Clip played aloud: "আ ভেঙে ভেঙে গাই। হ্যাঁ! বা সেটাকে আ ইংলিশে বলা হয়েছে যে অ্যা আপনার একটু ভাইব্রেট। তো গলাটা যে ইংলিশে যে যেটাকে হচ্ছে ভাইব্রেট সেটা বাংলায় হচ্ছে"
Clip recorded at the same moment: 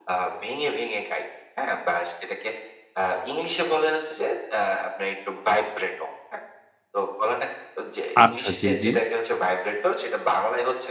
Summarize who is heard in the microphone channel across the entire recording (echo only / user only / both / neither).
both